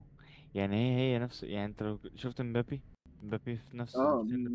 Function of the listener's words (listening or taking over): taking over